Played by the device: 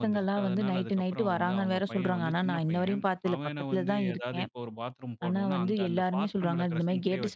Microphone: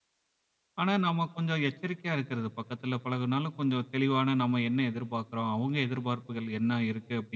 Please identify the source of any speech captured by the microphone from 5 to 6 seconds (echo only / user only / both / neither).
user only